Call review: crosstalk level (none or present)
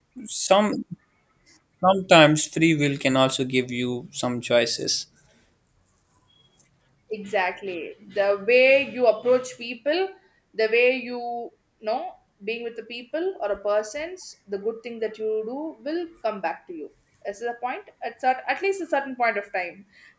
none